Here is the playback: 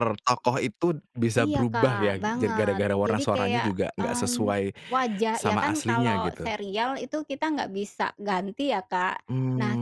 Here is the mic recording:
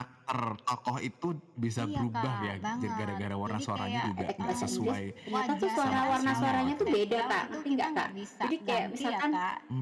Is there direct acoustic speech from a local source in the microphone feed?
Yes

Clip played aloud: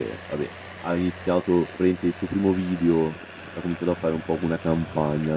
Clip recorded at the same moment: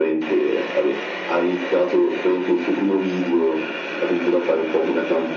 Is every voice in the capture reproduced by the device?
Yes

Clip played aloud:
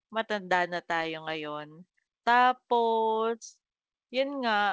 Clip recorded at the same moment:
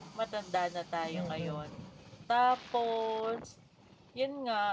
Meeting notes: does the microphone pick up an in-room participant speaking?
Yes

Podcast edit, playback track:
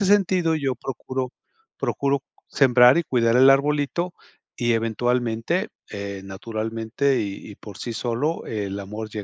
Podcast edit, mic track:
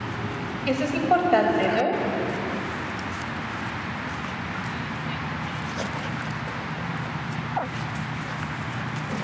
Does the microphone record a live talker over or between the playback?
Yes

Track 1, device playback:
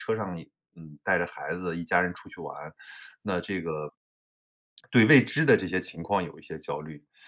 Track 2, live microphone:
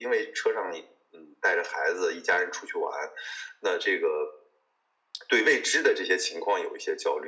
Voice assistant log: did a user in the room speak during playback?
No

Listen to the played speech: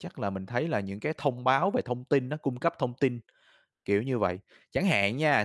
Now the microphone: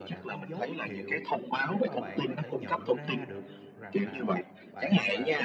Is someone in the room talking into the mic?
Yes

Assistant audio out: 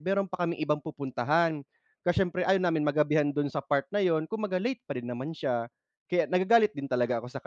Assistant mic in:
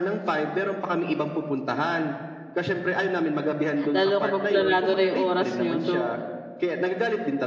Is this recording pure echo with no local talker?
No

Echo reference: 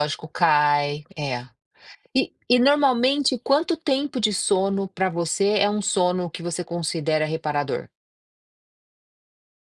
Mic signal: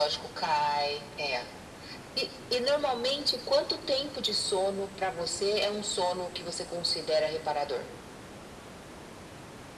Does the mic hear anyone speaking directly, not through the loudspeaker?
No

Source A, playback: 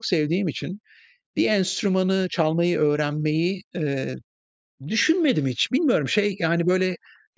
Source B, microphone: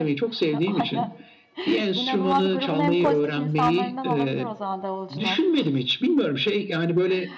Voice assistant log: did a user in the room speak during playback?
Yes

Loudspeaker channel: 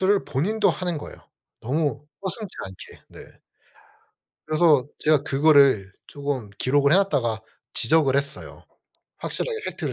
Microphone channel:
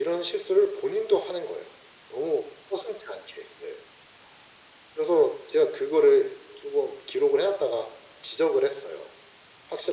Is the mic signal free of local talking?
Yes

